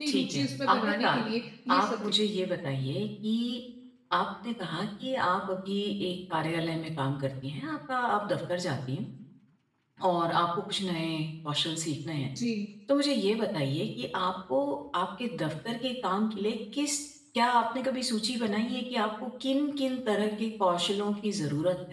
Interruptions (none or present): present